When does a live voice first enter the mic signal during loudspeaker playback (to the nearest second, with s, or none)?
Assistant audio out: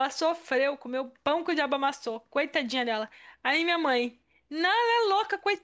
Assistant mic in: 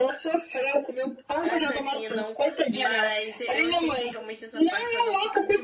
1 s